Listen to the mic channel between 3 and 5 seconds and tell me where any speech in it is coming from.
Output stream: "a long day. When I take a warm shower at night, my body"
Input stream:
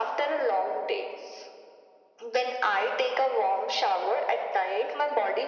echo only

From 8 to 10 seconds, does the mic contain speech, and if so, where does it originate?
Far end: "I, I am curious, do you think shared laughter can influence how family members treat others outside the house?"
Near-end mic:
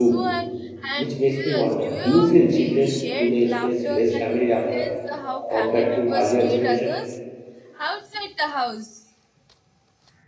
echo only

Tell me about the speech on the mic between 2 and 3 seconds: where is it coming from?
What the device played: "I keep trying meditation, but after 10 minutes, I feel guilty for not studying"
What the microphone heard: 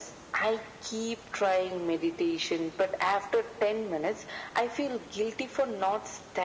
echo only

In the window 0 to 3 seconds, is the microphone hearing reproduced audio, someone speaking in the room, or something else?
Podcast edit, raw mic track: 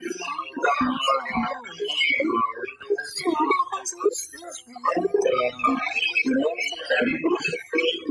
echo only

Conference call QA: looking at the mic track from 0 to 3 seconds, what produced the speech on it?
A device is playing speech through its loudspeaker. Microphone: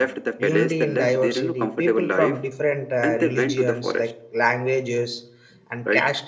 both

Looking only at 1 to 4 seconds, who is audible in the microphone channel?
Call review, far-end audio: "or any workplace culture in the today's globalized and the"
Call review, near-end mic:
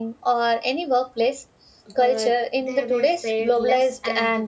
both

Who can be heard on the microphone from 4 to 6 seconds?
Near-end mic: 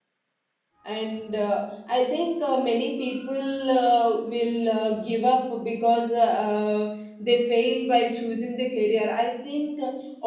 user only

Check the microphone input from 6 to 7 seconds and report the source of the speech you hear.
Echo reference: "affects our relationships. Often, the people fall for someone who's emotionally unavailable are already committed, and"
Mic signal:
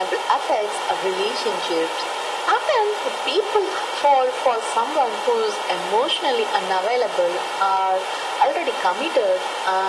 echo only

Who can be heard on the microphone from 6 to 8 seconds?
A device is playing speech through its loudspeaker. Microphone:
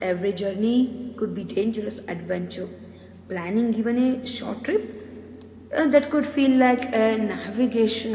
echo only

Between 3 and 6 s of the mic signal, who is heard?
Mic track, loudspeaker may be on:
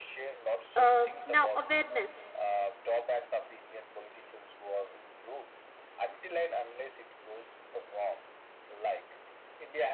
echo only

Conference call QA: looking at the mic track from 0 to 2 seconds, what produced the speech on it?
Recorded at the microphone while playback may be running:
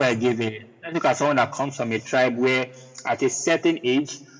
echo only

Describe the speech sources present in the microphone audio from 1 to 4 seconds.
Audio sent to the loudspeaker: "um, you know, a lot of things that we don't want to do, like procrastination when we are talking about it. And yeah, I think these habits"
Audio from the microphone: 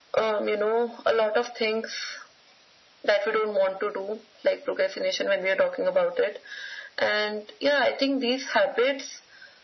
echo only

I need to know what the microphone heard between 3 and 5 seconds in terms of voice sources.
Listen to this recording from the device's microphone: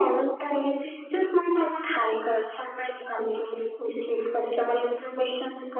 echo only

